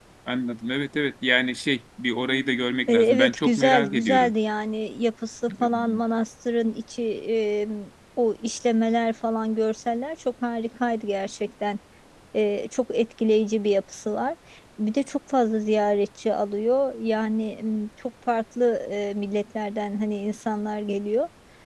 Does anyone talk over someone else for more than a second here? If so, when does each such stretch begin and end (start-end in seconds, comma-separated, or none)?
2.9-4.3